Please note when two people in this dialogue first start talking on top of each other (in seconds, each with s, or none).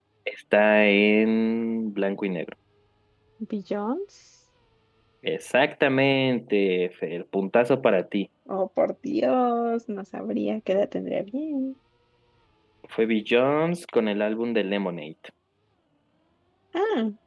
none